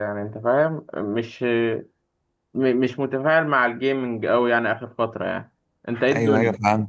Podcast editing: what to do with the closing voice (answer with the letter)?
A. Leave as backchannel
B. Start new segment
B